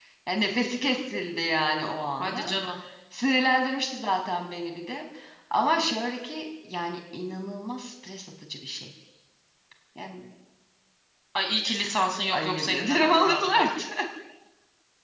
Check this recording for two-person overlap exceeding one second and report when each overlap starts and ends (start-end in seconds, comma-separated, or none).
12.3-13.6